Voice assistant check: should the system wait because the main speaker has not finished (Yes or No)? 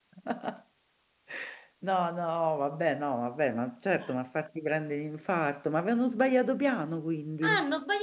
No